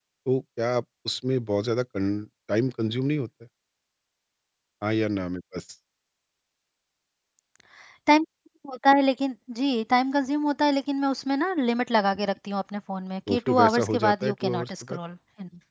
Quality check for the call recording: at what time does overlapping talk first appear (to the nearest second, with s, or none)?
13 s